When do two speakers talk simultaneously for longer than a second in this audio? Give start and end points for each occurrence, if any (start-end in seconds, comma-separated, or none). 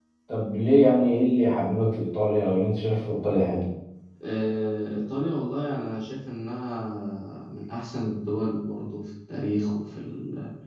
none